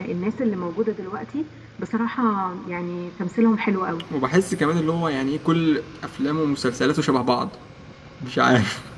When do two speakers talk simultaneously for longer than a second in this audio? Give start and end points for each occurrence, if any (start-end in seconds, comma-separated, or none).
none